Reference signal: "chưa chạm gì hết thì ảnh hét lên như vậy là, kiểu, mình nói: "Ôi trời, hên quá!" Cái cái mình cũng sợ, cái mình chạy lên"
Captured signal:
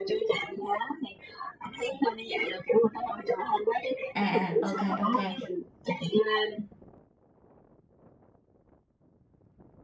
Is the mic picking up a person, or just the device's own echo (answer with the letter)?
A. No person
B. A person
B